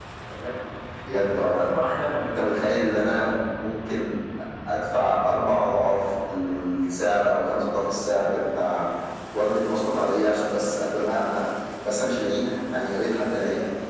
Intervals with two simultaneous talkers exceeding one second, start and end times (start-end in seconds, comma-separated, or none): none